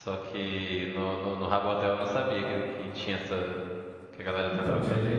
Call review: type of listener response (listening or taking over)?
taking over